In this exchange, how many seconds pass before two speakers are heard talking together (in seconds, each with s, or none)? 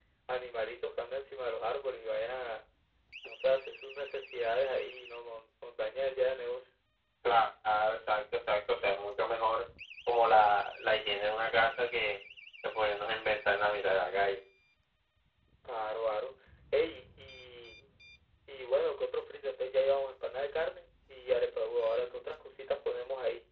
none